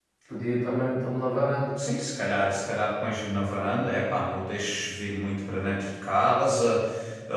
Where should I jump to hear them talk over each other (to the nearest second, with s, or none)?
none